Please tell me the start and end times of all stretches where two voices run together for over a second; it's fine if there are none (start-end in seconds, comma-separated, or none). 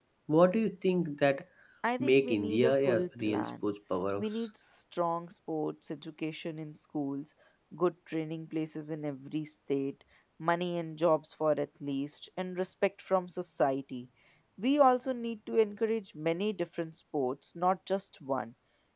2.0-3.6